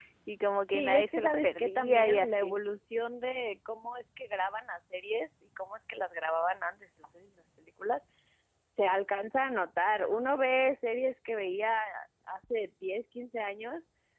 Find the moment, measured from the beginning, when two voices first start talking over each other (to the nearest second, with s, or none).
1 s